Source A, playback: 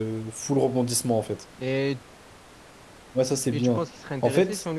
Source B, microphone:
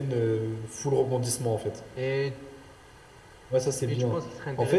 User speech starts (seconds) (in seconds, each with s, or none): none